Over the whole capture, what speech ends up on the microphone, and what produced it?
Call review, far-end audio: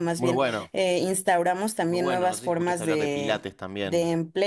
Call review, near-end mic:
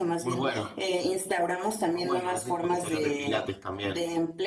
echo only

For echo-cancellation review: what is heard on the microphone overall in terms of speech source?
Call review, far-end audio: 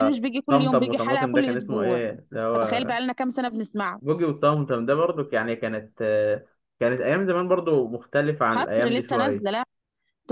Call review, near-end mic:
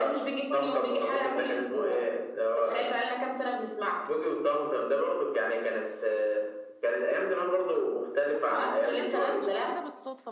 both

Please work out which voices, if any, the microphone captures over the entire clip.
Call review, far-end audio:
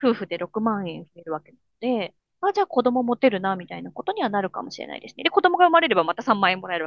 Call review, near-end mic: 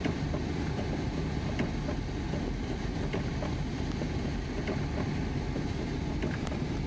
neither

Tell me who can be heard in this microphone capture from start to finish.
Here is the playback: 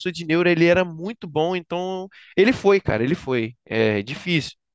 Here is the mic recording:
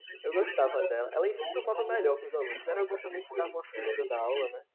both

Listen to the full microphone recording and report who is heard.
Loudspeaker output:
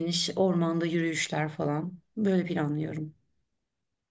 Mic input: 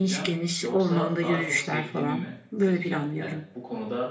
both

